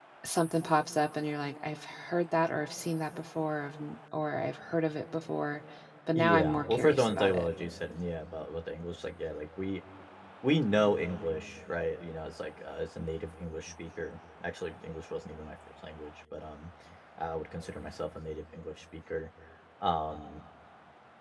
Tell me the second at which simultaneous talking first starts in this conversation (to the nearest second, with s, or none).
6 s